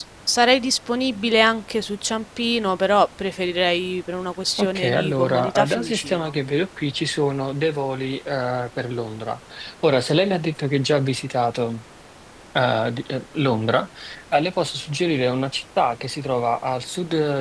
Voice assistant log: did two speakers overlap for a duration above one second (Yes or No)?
Yes